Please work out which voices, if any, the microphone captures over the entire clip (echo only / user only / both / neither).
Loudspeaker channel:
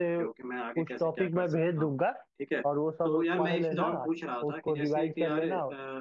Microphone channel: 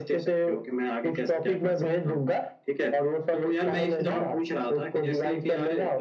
echo only